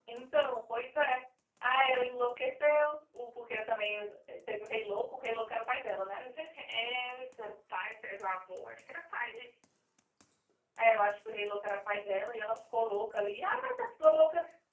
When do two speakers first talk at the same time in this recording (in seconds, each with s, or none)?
none